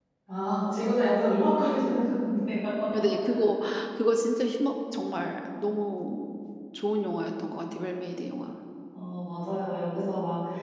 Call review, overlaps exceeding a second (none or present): none